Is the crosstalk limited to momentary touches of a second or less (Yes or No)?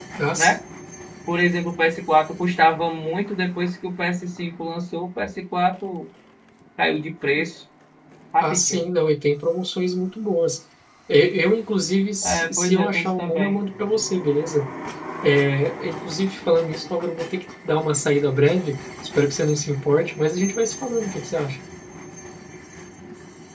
No